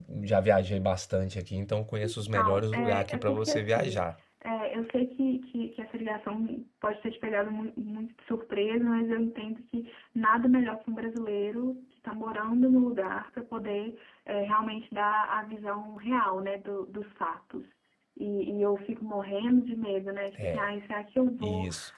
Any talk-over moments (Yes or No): Yes